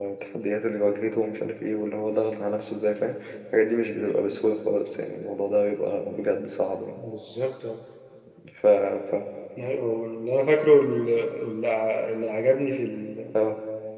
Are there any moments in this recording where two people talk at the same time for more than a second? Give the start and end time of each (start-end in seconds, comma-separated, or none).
none